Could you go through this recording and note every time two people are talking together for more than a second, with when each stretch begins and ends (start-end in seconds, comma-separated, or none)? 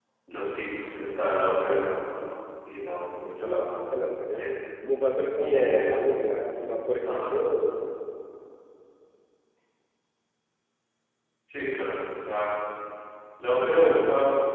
3.2-4.4